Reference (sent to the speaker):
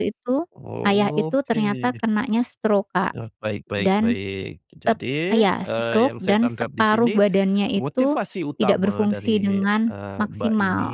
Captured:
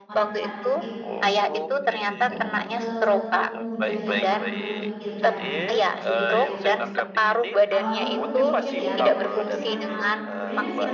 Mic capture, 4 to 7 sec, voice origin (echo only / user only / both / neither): both